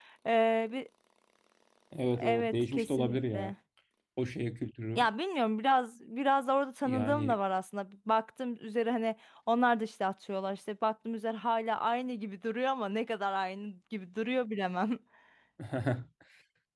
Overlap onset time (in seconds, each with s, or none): 2.2 s